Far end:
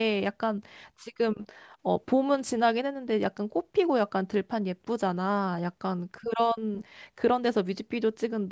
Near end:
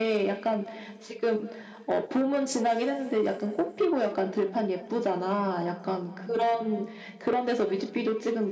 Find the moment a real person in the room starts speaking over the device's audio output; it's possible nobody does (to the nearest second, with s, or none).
none